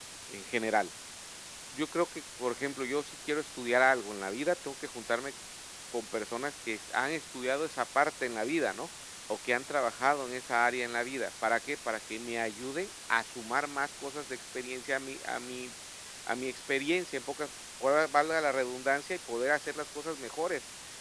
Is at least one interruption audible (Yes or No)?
No